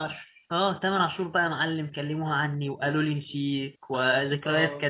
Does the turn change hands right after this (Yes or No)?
No